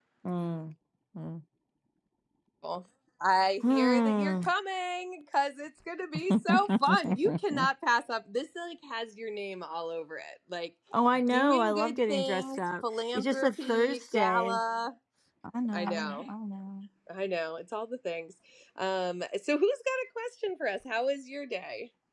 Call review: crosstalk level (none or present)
present